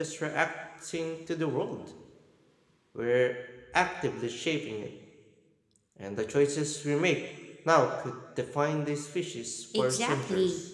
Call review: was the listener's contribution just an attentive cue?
No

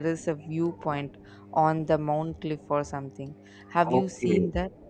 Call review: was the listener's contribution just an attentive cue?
No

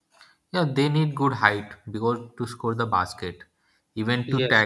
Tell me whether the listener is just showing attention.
Yes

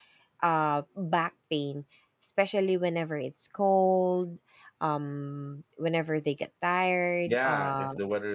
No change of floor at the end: No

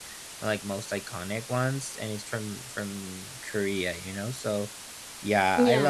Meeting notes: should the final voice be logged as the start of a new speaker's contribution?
No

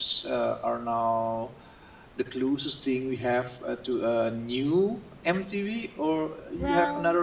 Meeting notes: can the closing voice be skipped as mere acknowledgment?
No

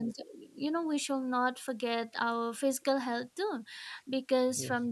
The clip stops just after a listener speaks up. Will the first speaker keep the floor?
Yes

